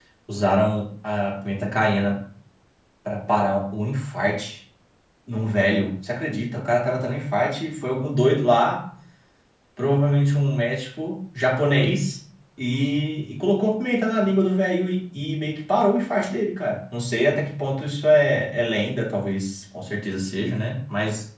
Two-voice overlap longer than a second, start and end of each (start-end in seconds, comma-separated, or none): none